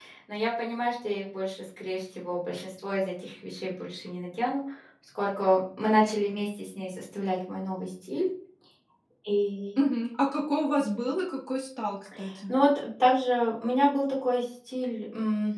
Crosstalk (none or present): none